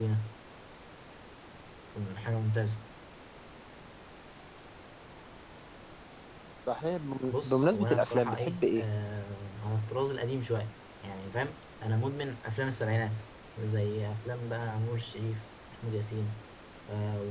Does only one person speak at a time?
No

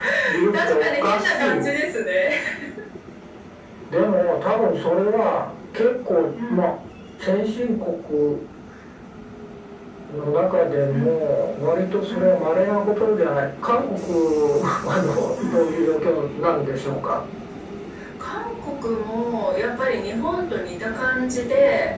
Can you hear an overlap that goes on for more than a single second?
Yes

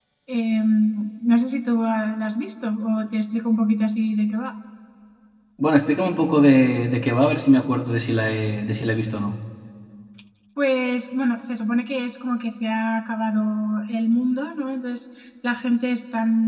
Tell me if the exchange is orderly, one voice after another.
Yes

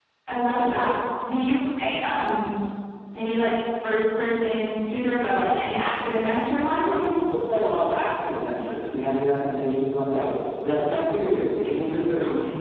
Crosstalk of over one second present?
No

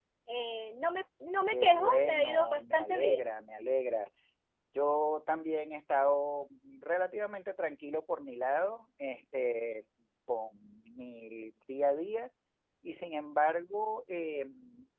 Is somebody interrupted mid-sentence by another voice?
Yes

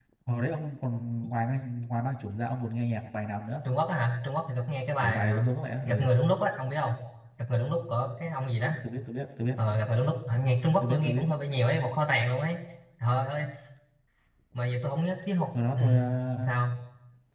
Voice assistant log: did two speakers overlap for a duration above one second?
No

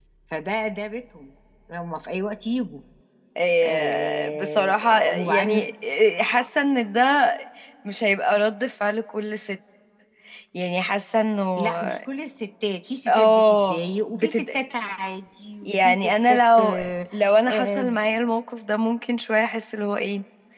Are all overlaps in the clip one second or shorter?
No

